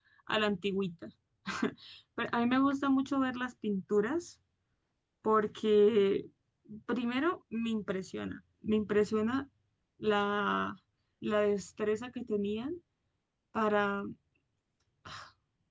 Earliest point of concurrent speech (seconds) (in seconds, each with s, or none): none